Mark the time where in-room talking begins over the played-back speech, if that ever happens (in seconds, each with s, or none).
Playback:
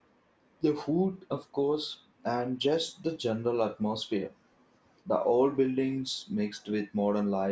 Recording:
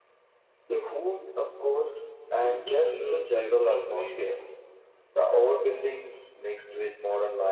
2.4 s